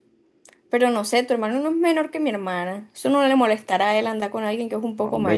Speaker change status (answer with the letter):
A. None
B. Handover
B